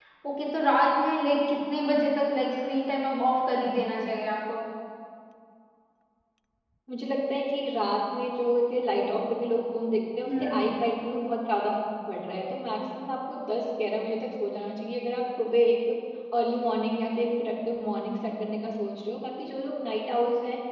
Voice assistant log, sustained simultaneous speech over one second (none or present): none